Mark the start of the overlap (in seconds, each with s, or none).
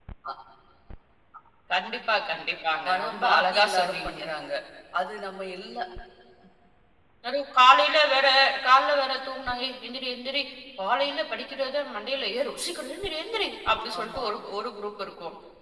2.9 s